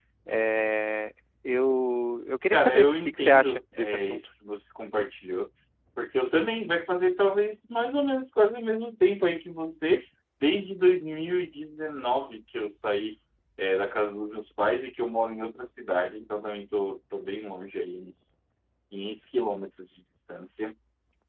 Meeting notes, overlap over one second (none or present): present